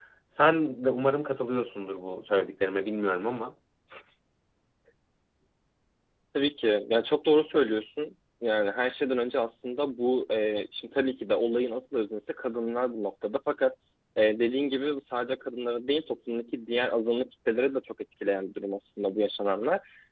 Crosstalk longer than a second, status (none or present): none